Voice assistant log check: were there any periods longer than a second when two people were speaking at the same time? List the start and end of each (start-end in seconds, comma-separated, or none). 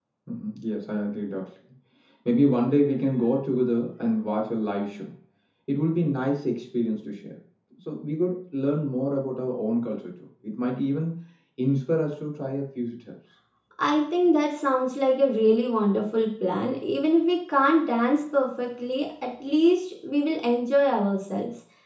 none